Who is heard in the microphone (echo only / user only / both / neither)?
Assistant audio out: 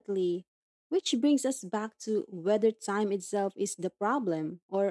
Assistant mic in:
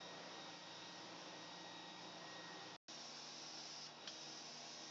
neither